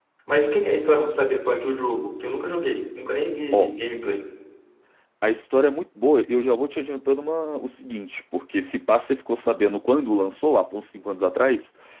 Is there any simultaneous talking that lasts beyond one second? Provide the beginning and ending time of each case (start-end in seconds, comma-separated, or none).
none